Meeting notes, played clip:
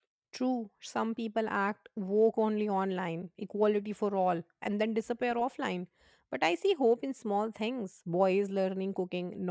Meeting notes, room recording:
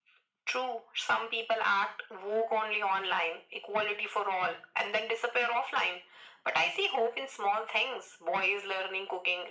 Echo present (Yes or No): Yes